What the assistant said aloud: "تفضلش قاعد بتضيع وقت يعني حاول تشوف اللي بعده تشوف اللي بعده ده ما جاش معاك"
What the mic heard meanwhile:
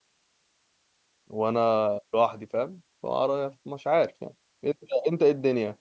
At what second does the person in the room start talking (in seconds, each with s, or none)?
1.3 s